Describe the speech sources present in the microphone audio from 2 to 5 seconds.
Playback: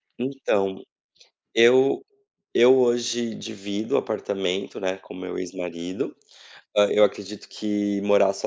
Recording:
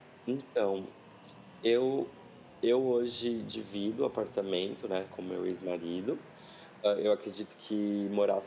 echo only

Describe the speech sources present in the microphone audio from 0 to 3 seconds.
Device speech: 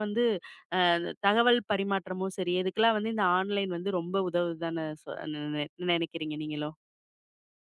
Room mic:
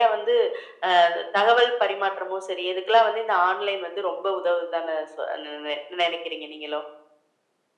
echo only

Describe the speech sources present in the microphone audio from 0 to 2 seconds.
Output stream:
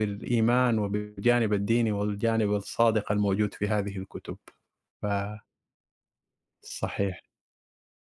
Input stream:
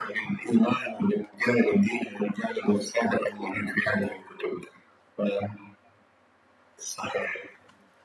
echo only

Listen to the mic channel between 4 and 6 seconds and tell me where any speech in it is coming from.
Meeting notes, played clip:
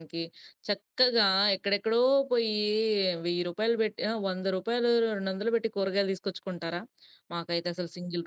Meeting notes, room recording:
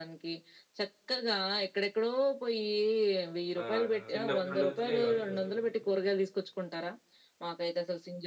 both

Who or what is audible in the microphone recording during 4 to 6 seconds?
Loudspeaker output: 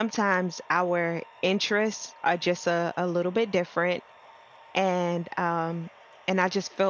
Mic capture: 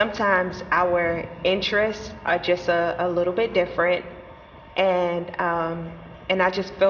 echo only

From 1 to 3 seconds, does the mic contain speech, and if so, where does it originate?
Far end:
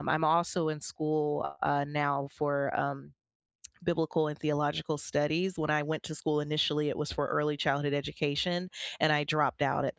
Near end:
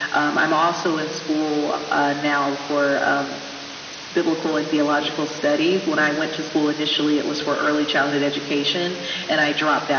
echo only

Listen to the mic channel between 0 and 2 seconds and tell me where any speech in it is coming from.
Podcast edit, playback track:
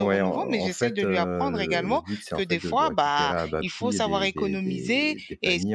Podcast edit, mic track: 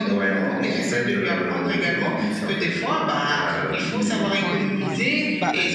echo only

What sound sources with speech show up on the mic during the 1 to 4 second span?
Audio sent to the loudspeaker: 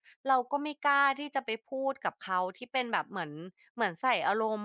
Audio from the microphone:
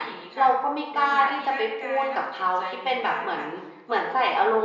both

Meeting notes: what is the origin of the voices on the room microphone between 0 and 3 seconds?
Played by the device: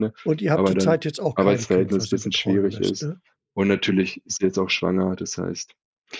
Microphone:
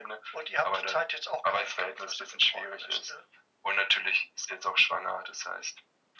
echo only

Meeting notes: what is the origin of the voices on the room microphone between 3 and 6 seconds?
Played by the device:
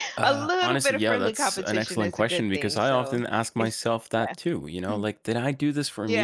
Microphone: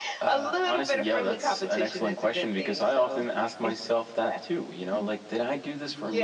echo only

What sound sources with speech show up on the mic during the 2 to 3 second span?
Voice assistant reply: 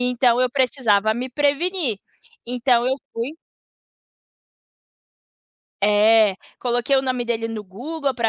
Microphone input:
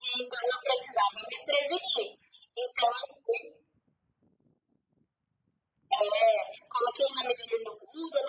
echo only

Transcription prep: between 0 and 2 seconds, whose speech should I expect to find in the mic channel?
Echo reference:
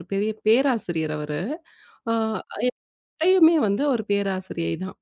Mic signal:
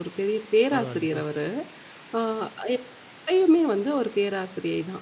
both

